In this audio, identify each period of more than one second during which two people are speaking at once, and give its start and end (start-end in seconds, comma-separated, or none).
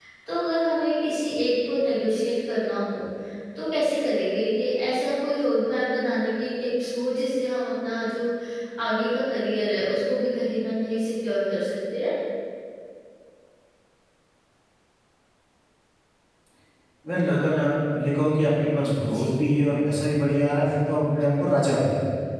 none